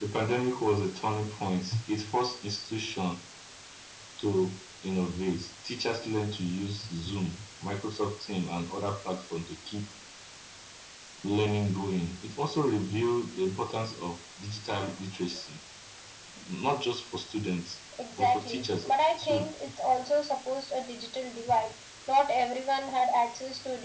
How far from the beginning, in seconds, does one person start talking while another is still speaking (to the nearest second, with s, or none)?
18 s